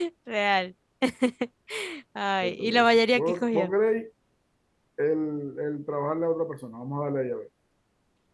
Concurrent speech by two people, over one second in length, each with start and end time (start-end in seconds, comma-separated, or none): 2.4-3.7